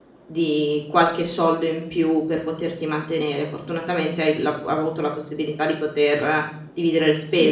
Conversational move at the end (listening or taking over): taking over